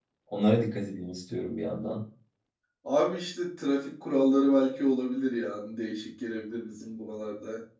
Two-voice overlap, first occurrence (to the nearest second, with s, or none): none